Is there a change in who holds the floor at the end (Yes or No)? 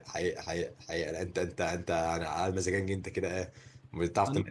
No